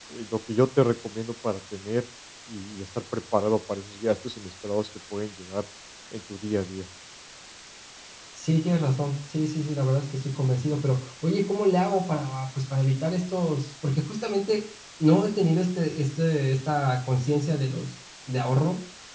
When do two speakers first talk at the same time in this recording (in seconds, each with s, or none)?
none